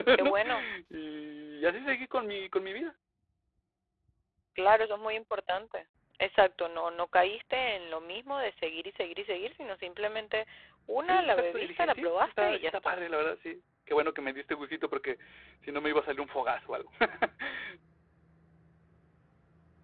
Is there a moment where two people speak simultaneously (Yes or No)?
Yes